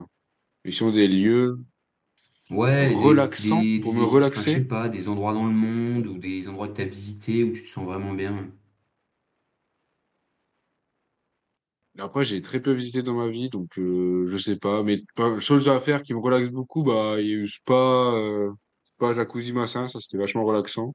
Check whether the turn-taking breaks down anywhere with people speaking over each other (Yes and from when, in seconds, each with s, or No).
Yes, from 2.8 s